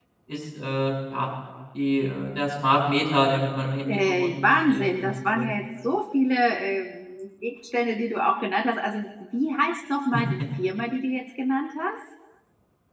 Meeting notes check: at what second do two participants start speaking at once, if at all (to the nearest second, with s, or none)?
4 s